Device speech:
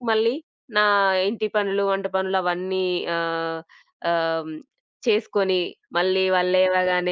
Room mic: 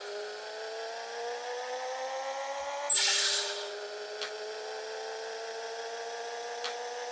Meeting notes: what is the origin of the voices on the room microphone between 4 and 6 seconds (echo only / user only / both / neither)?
neither